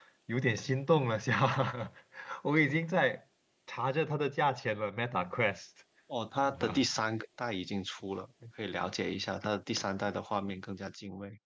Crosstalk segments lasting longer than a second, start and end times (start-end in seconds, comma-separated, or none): none